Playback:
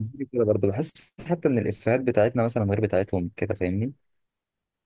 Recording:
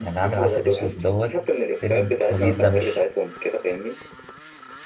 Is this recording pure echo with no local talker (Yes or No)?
No